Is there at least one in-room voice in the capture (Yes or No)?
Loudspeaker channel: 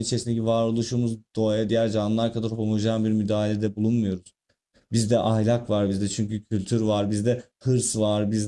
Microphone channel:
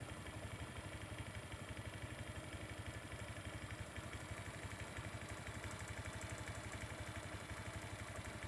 No